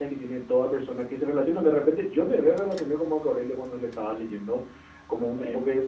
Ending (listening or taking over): listening